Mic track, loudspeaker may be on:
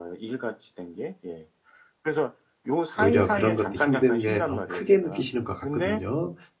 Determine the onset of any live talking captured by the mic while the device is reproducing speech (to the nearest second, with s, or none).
3 s